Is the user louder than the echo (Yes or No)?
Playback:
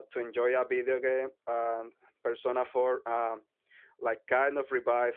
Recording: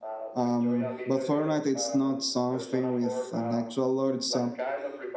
Yes